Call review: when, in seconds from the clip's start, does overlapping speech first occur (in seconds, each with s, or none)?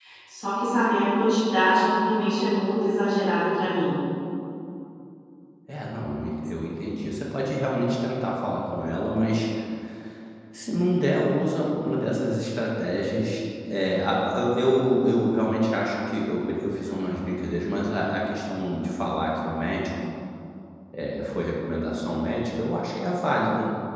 none